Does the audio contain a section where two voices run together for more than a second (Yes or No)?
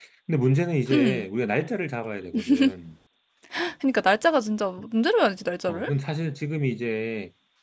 No